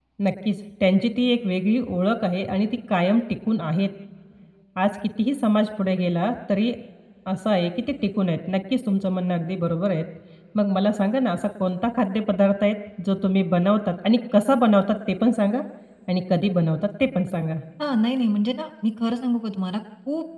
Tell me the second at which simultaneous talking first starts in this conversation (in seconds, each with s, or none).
none